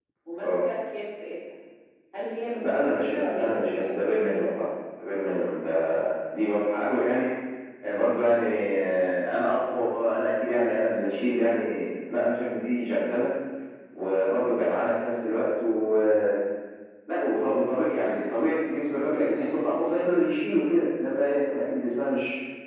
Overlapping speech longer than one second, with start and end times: 2.6-4.1

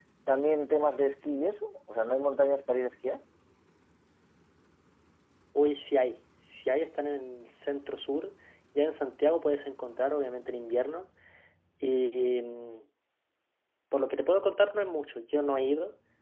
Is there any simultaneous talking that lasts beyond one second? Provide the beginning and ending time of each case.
none

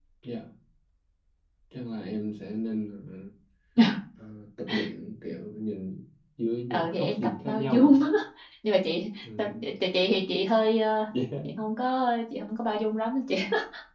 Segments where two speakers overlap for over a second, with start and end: 6.7-8.0

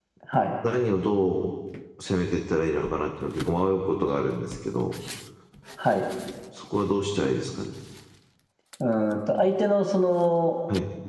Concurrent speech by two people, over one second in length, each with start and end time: none

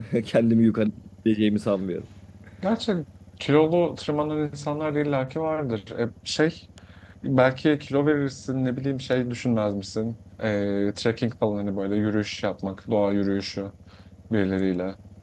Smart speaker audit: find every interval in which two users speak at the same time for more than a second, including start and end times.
none

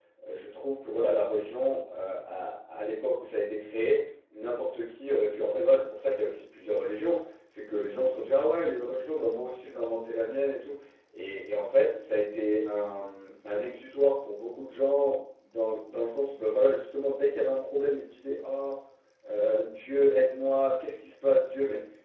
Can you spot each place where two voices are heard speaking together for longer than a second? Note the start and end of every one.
none

